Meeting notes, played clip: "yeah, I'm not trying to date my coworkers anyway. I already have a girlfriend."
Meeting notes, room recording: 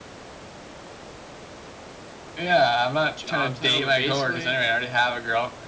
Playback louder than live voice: Yes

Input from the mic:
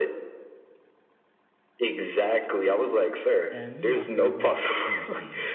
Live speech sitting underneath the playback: Yes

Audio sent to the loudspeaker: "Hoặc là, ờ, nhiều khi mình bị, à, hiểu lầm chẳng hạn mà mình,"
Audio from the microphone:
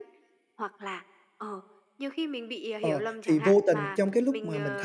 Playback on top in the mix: No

